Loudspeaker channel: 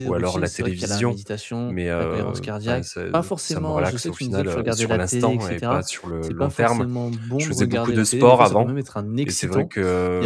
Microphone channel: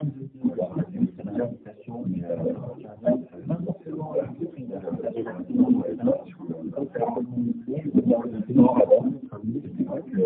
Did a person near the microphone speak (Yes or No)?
No